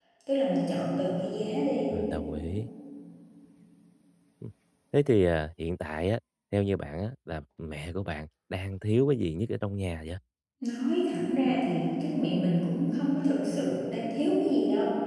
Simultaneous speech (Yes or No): No